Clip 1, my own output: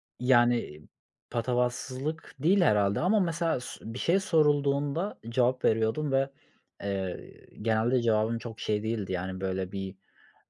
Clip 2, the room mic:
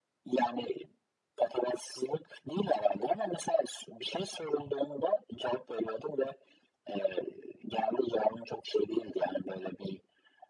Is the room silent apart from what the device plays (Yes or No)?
Yes